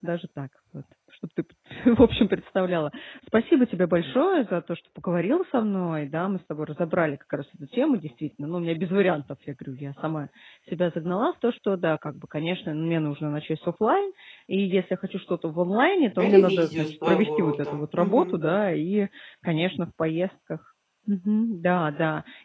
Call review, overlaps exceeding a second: present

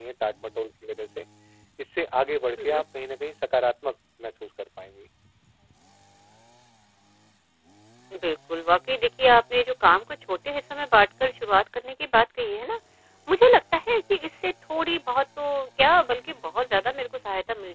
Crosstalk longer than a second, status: none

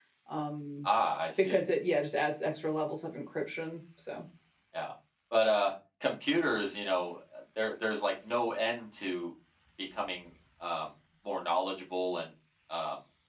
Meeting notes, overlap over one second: none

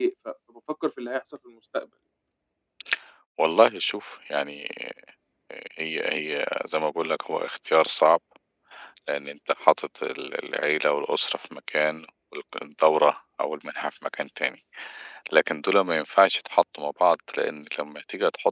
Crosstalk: none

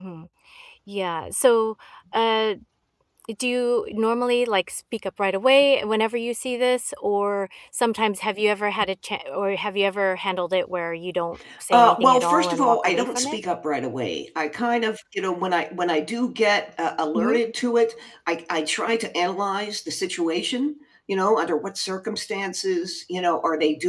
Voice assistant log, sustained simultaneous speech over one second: present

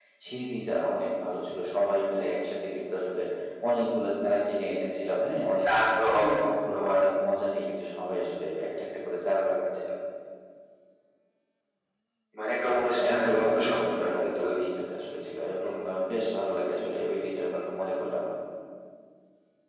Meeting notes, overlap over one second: present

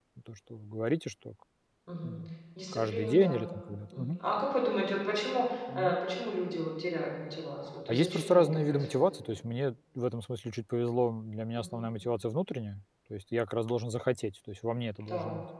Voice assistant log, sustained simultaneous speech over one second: present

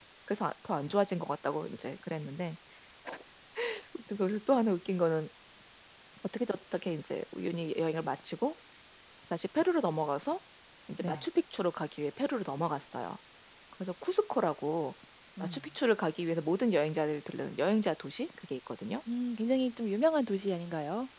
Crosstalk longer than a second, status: none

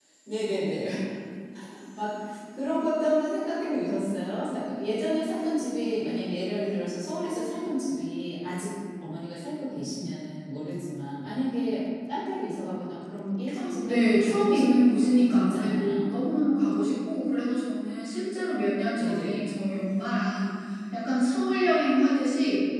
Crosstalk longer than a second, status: present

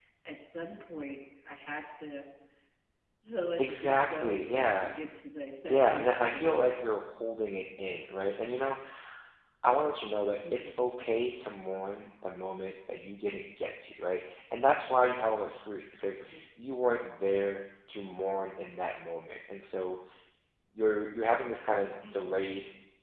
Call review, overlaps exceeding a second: present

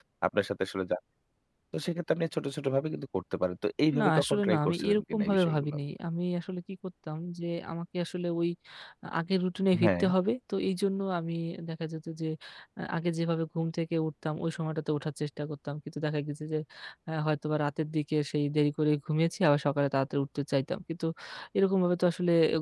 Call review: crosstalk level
present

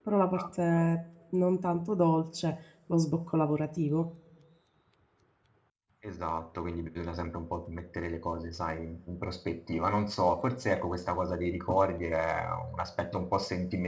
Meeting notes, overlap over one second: none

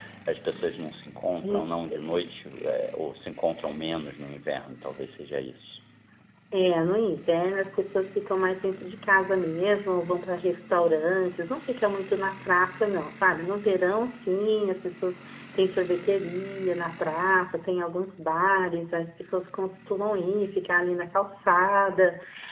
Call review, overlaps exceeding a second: none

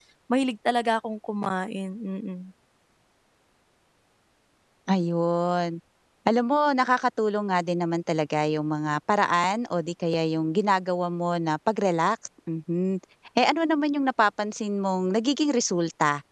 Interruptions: none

